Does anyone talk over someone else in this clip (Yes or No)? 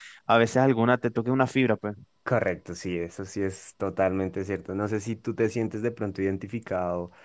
No